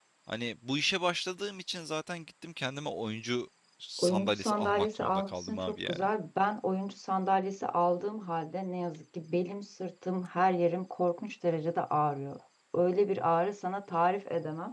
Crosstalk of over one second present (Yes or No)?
Yes